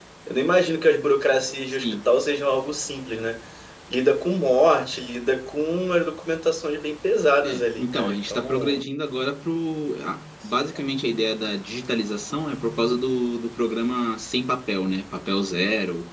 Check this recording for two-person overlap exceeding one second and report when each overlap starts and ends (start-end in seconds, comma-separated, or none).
7.4-8.9